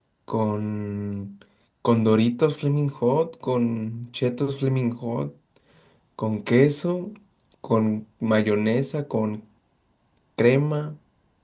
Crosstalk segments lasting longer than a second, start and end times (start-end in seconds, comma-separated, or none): none